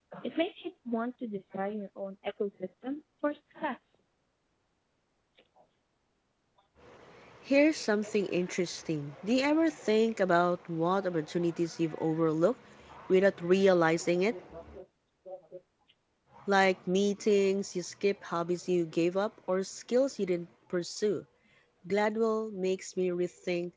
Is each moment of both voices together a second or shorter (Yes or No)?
Yes